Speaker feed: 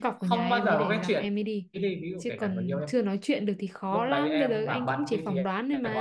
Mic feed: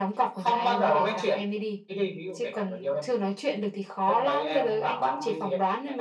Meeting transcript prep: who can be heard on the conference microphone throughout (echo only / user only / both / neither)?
echo only